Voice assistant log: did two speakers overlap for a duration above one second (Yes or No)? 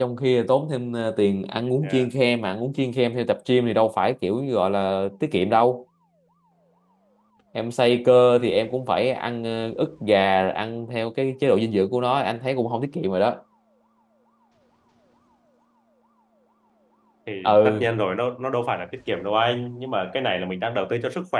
No